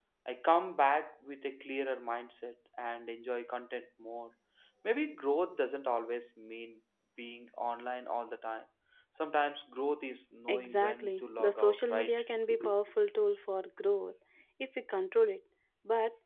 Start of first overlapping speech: 10 s

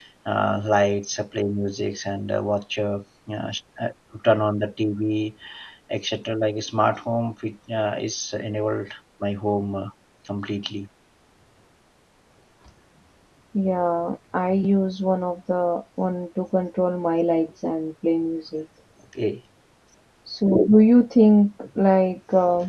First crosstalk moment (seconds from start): none

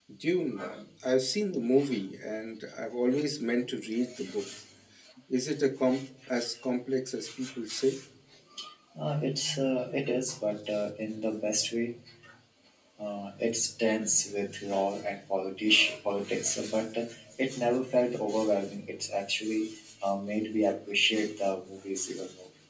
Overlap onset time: none

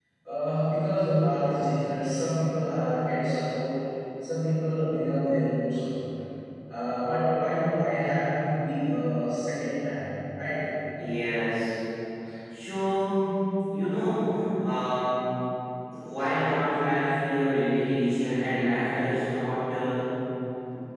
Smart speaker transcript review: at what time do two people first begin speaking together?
none

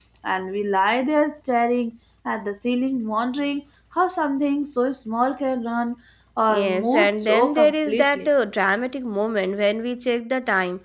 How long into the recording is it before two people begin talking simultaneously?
6 s

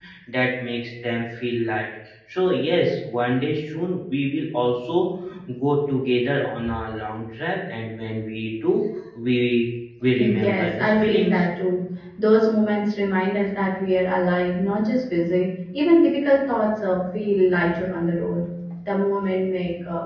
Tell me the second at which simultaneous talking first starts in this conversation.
10 s

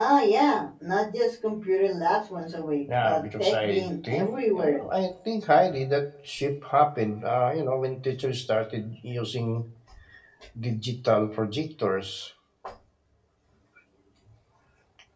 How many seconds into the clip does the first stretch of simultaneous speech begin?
3 s

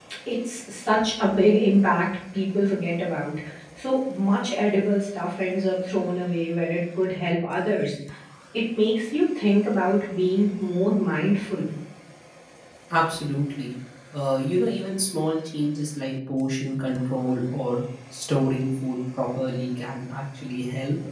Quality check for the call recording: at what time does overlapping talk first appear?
none

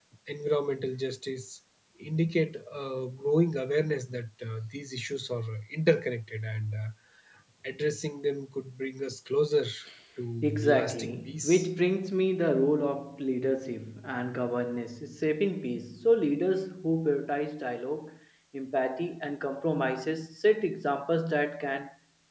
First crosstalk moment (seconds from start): 10 s

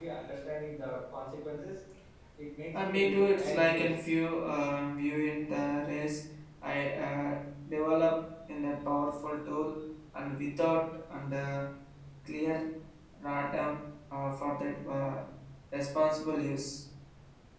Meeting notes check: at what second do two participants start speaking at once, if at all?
3 s

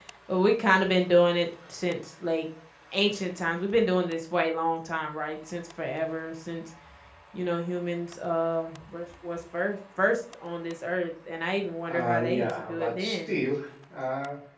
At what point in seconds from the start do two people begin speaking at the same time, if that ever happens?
12 s

